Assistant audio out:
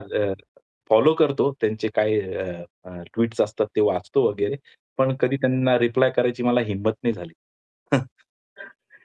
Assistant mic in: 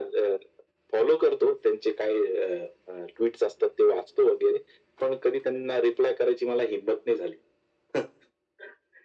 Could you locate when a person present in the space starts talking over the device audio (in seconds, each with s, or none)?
none